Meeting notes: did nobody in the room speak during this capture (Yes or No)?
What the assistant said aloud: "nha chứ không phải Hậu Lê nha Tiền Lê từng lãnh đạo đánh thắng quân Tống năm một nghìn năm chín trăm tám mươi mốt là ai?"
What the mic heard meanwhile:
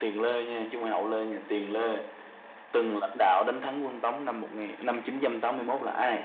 Yes